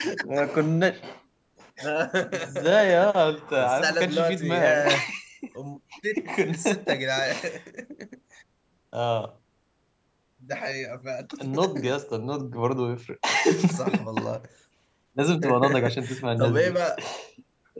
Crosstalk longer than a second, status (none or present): present